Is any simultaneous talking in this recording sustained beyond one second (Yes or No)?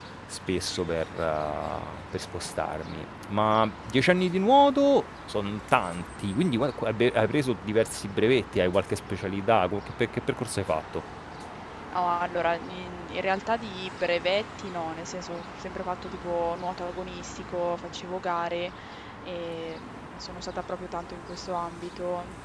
No